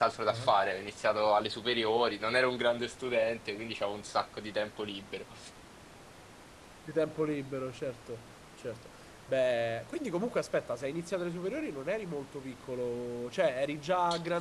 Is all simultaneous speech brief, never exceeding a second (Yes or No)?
Yes